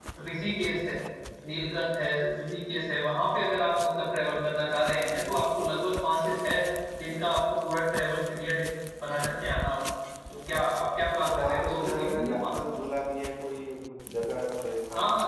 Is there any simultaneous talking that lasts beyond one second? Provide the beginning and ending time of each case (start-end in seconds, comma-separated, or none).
11.3-12.6